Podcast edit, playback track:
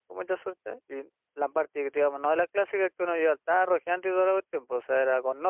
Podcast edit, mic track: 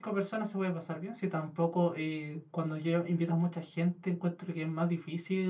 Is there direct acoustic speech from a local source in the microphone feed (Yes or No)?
Yes